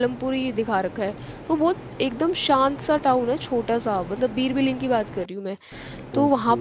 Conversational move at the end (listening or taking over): listening